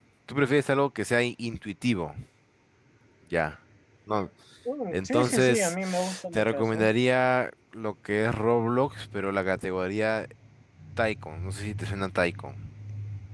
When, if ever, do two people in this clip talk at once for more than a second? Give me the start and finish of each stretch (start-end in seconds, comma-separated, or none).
4.9-6.9